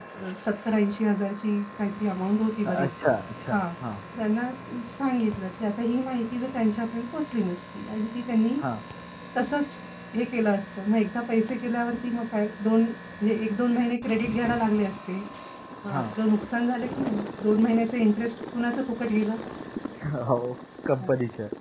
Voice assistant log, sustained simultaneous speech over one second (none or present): none